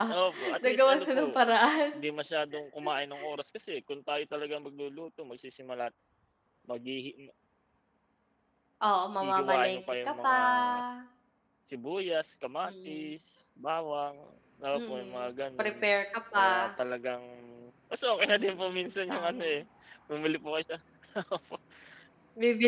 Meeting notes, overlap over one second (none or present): present